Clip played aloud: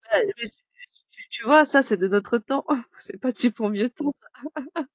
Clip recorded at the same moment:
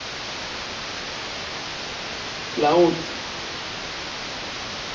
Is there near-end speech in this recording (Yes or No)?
Yes